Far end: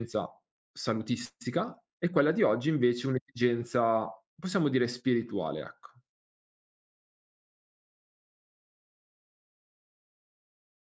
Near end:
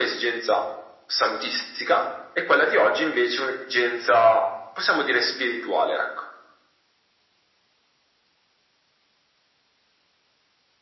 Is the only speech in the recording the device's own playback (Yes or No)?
Yes